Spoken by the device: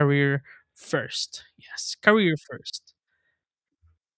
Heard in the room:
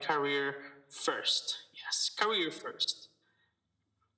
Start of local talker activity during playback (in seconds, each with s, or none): none